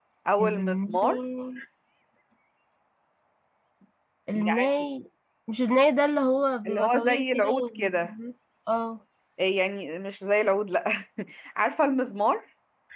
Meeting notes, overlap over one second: present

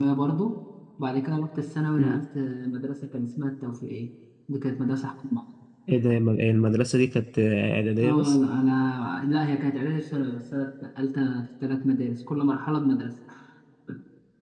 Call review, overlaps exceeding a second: none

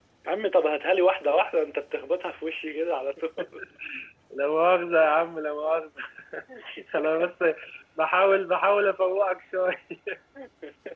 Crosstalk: none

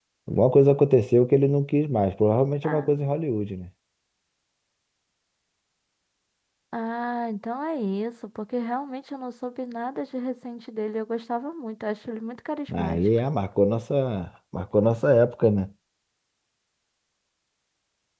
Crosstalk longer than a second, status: none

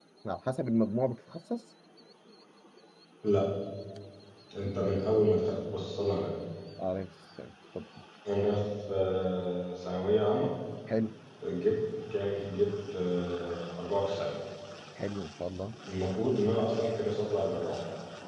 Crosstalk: none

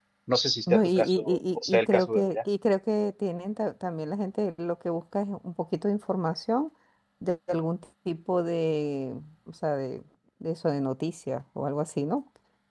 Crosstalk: present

